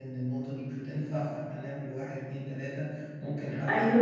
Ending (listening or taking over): listening